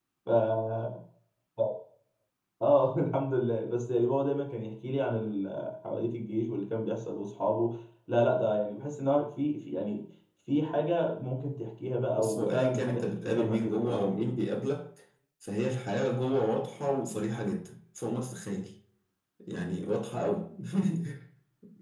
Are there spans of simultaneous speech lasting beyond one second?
Yes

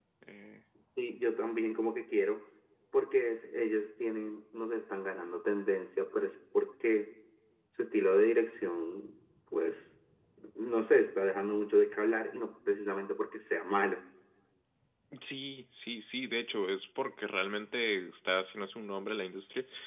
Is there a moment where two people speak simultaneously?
No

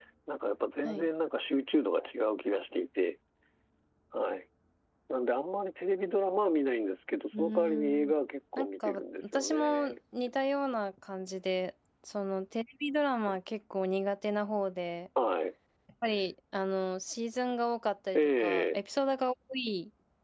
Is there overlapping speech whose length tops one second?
Yes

